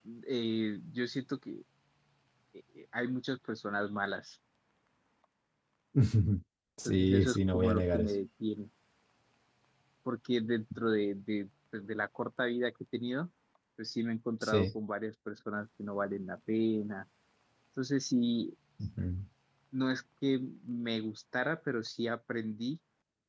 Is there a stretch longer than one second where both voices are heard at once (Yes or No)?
Yes